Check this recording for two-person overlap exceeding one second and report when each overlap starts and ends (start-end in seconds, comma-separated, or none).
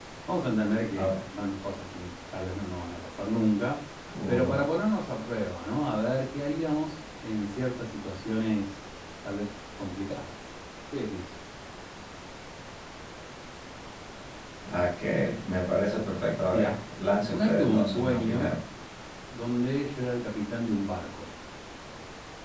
17.3-18.5